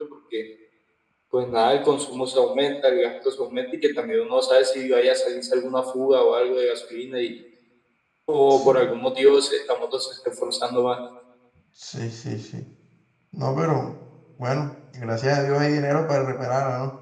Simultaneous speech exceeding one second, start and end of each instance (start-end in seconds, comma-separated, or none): none